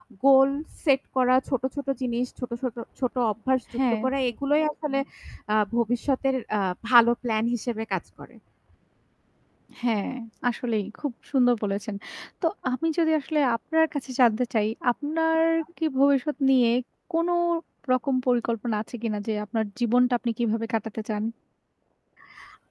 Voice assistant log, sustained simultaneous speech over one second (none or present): none